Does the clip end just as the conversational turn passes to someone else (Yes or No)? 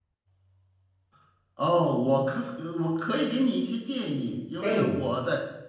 No